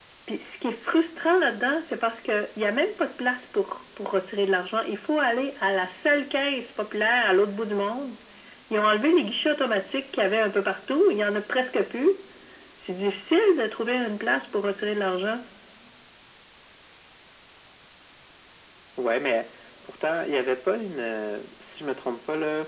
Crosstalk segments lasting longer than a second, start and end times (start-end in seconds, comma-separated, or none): none